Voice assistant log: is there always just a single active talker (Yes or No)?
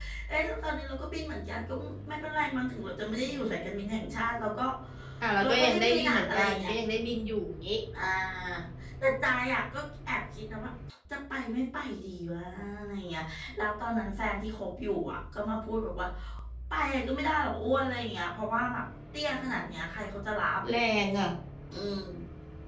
No